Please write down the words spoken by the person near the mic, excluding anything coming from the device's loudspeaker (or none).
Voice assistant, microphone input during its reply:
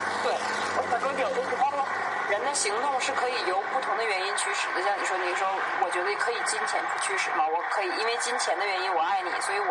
none